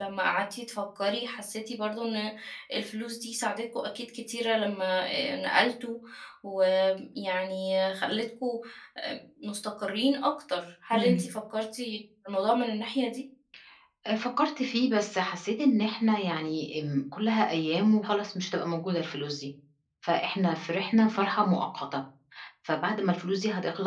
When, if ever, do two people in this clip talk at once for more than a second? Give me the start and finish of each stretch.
none

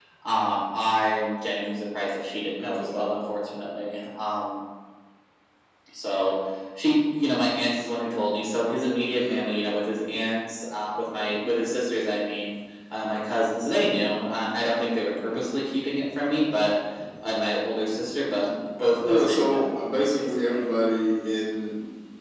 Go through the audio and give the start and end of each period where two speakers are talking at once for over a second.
19.0-20.6

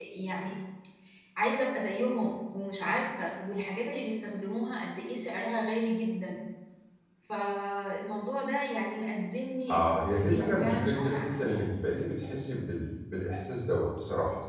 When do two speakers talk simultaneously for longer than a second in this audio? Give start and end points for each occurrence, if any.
9.7-11.8

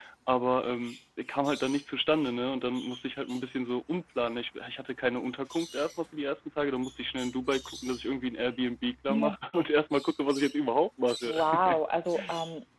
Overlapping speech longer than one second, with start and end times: none

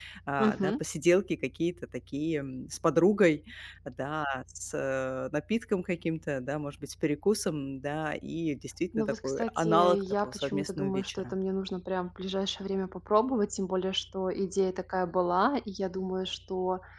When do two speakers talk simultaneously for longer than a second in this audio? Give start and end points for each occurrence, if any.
9.0-11.3

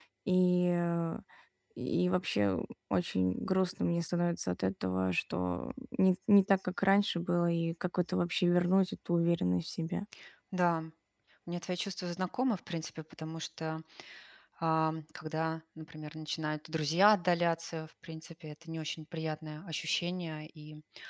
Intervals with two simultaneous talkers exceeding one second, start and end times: none

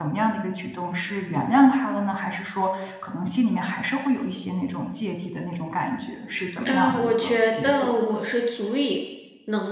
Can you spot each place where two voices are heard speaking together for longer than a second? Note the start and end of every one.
6.7-7.9

